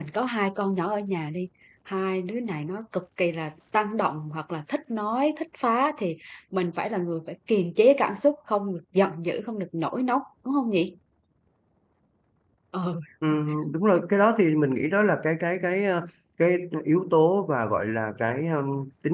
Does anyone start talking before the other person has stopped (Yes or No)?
No